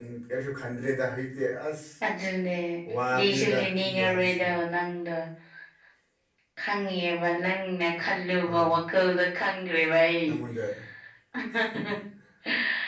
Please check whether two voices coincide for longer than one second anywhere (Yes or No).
Yes